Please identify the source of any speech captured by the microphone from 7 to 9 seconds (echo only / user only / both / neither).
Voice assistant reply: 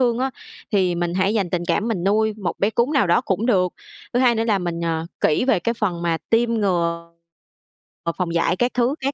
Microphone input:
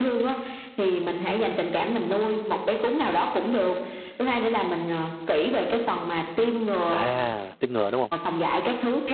both